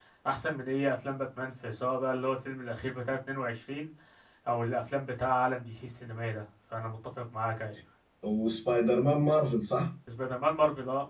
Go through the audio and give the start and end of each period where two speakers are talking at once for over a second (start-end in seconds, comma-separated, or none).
none